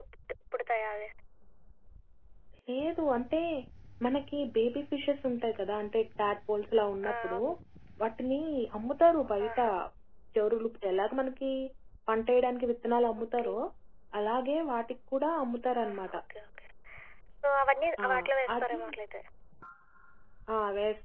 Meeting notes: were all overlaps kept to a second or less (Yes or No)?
Yes